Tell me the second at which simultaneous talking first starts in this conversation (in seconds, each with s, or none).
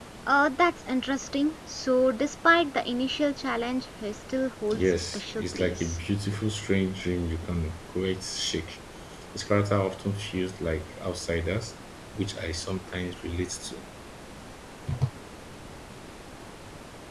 4.7 s